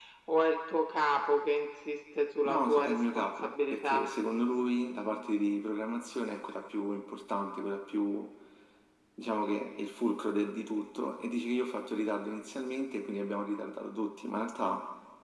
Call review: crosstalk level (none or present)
present